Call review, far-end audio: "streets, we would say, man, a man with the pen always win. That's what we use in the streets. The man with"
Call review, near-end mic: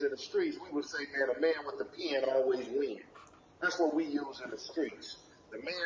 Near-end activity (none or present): none